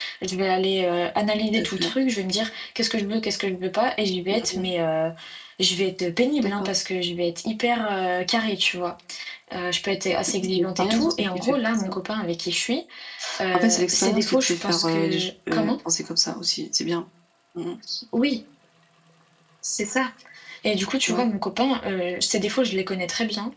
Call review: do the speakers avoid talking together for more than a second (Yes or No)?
No